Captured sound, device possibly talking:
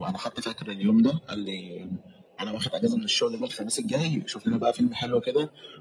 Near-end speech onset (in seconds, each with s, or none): none